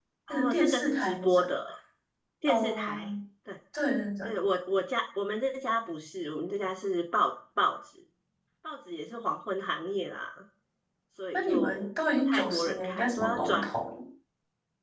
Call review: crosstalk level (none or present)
present